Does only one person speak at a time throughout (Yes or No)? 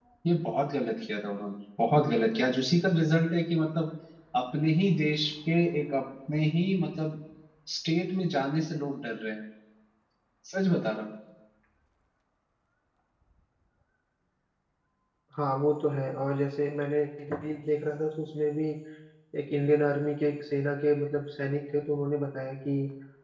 Yes